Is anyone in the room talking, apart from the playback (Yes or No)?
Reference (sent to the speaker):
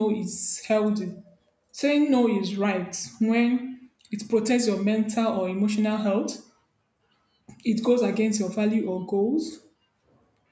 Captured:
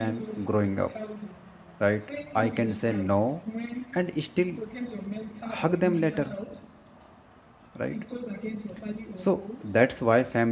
Yes